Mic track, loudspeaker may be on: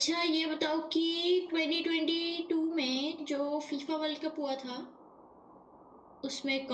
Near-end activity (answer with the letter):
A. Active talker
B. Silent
B